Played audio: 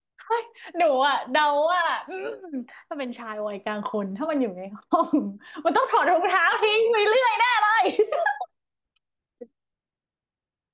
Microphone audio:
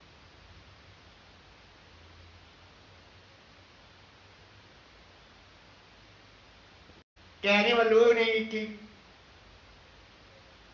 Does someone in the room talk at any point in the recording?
Yes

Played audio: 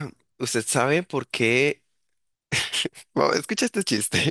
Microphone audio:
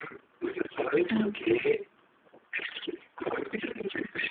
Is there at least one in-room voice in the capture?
Yes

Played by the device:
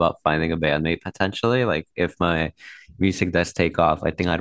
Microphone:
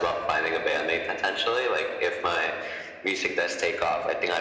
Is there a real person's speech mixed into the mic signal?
No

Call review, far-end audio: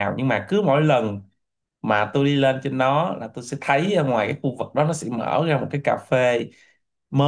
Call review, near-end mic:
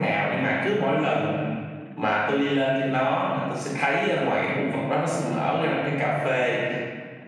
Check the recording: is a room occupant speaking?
No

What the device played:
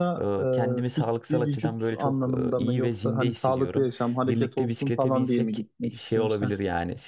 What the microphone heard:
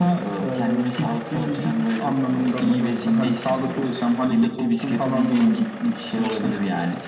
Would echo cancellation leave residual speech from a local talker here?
No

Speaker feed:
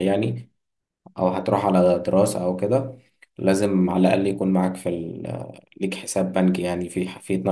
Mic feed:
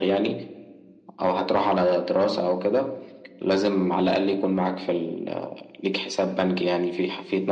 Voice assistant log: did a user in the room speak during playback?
No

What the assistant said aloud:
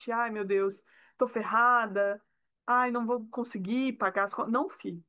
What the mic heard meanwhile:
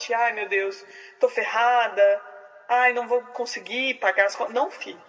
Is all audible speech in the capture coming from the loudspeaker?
Yes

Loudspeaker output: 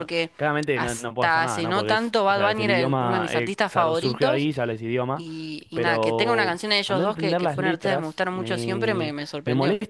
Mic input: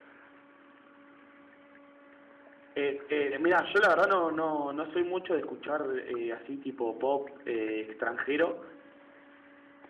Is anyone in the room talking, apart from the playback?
Yes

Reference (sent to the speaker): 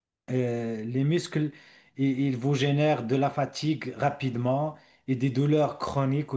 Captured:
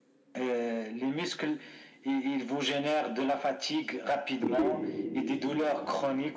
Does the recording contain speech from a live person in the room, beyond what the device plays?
Yes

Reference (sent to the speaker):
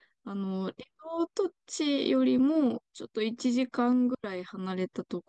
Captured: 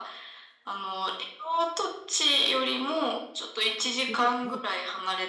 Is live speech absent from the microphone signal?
No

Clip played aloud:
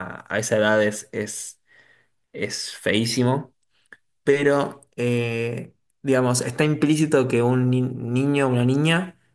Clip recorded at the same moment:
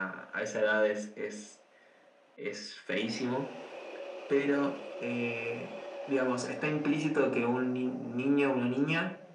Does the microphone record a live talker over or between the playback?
No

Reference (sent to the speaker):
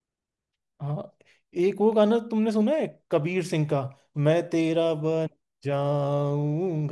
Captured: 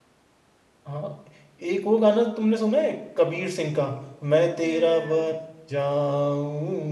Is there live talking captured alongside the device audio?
Yes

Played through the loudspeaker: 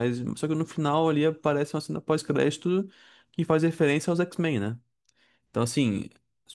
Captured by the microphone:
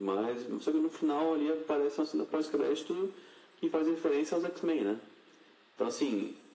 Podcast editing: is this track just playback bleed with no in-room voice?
Yes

